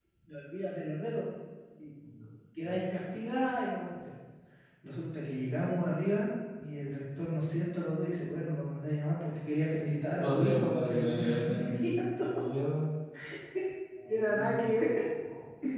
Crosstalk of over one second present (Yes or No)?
Yes